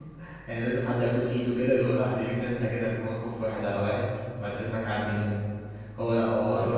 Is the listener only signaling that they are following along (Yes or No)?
Yes